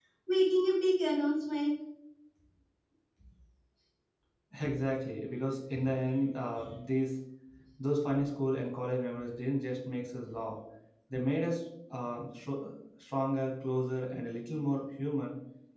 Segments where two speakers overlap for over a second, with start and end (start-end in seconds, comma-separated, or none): none